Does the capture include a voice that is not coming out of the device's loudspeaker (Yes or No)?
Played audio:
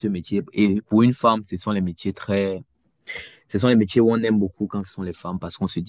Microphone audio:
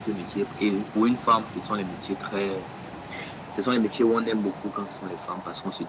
No